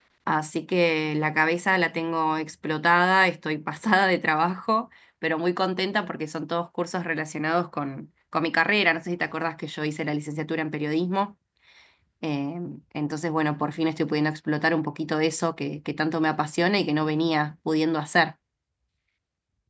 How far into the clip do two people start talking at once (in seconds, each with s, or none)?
none